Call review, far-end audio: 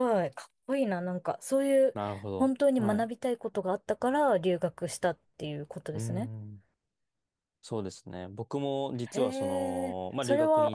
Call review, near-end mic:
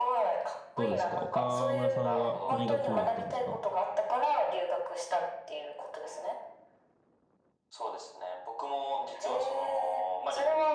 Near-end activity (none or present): present